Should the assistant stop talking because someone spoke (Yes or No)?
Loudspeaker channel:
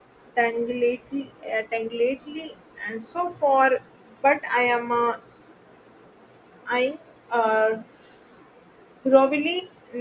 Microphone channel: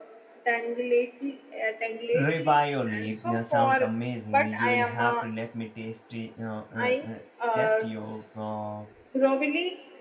Yes